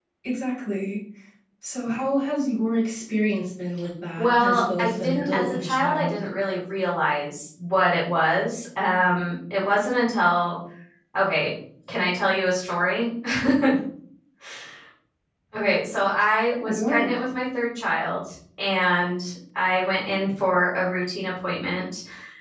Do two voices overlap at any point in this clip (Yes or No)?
Yes